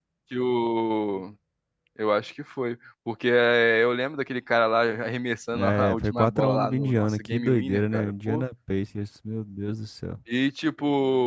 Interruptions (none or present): present